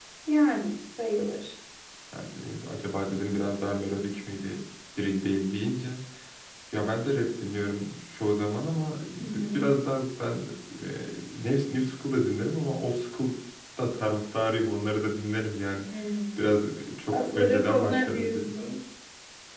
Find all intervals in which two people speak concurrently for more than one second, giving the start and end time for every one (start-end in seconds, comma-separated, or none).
17.1-18.5